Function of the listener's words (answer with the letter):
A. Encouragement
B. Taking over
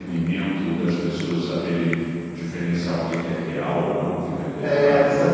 B